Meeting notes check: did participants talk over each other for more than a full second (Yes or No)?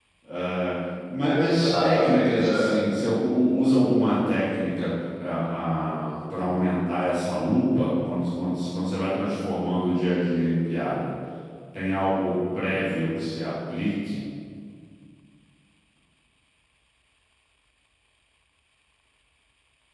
Yes